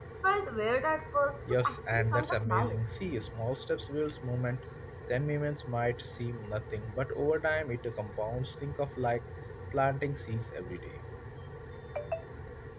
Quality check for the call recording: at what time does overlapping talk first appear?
1 s

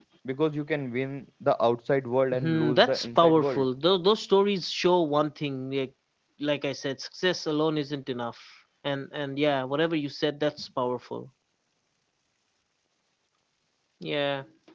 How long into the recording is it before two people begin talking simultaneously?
2 s

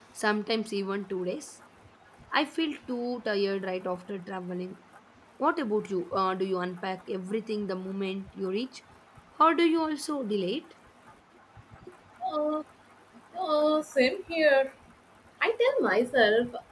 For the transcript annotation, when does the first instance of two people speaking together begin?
none

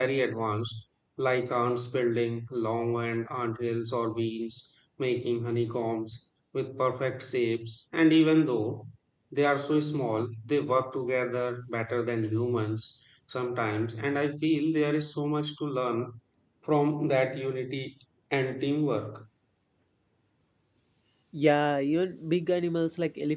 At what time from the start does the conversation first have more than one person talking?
none

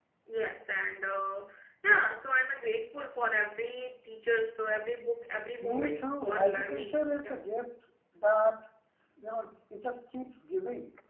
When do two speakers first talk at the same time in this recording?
6 s

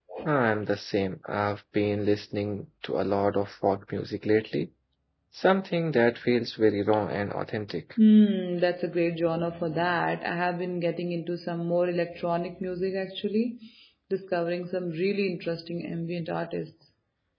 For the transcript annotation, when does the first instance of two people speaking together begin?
none

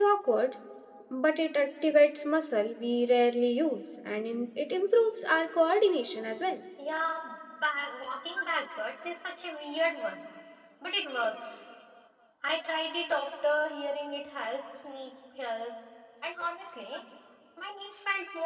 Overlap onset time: none

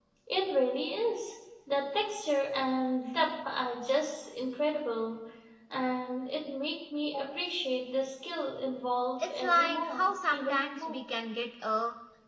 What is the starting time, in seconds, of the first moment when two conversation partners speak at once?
9 s

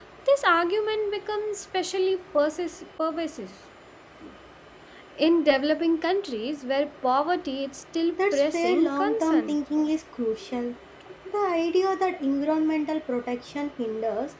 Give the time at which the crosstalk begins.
8 s

